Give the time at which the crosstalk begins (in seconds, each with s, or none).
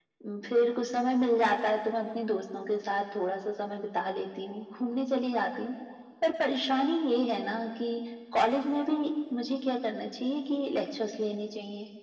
none